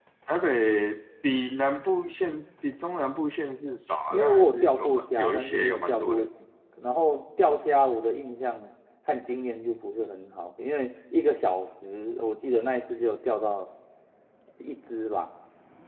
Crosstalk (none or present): present